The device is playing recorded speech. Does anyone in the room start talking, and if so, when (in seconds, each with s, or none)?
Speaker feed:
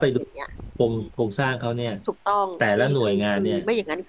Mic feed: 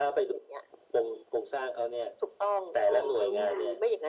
2.9 s